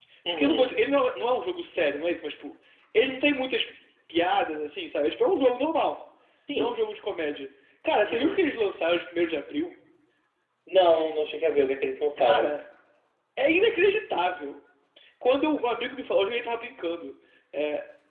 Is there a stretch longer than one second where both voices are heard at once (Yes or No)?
No